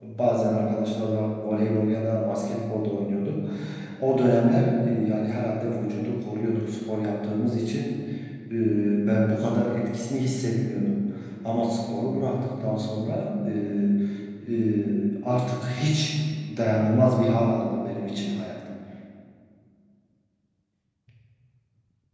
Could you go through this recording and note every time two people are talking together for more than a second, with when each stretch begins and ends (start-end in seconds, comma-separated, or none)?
none